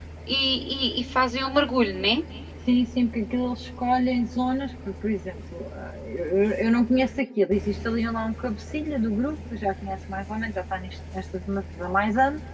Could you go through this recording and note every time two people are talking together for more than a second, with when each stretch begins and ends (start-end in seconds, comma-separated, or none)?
none